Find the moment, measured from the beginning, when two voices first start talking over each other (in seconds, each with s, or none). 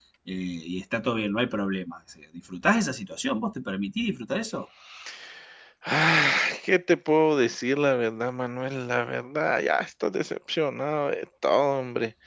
none